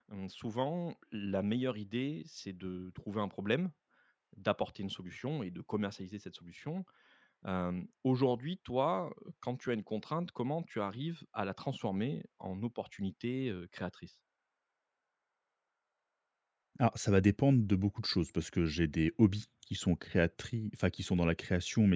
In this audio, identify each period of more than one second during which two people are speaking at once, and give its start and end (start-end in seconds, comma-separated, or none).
none